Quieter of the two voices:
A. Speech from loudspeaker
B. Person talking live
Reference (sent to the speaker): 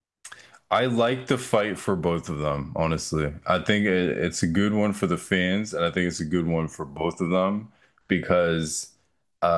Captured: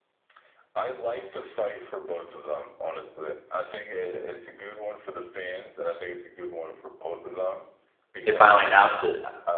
A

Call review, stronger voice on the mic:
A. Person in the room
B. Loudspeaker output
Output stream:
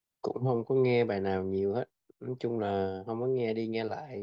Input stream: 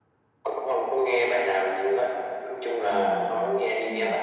B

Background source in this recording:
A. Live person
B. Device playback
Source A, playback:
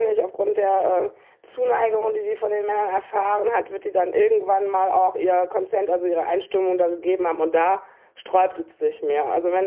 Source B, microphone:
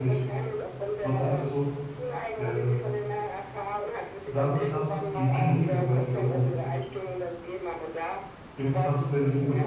B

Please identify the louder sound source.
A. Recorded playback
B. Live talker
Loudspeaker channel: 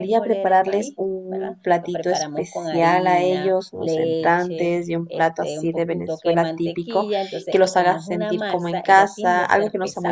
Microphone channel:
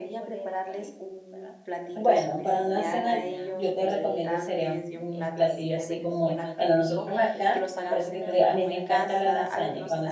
B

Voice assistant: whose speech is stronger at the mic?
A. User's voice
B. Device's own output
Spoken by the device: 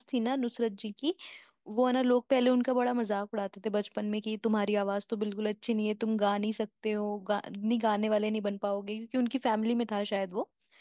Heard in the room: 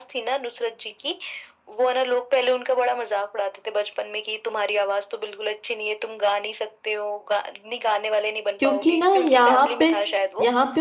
A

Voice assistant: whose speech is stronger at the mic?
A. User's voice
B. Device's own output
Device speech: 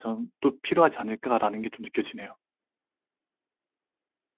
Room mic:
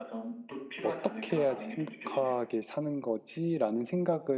A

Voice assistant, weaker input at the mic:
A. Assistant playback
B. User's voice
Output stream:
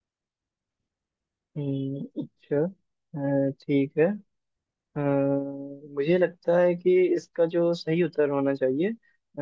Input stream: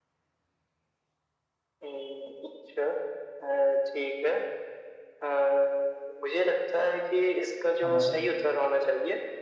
B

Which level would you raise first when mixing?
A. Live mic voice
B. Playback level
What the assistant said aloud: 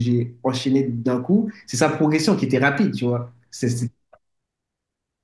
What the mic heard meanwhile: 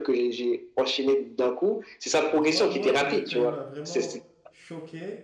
A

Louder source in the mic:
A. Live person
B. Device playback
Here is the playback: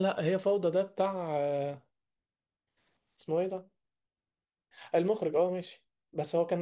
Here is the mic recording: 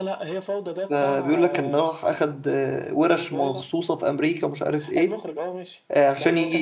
A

